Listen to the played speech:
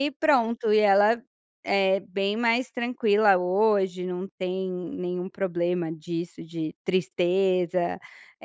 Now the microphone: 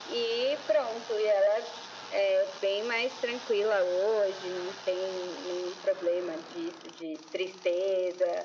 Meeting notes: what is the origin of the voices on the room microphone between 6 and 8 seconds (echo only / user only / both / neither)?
echo only